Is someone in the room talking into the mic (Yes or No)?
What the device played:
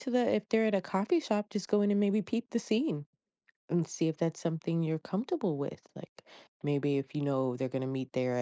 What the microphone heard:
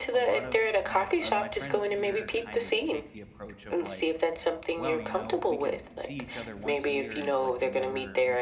Yes